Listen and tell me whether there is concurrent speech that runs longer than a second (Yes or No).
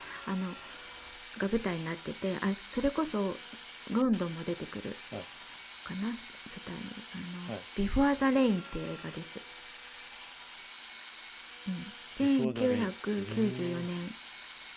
Yes